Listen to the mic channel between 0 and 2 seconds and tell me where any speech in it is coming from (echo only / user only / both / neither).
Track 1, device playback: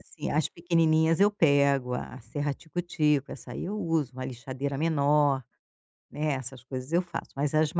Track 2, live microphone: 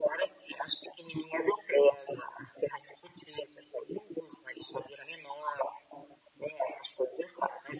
echo only